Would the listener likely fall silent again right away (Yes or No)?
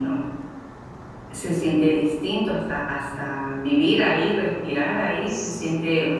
Yes